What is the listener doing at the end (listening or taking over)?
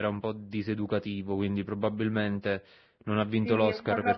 taking over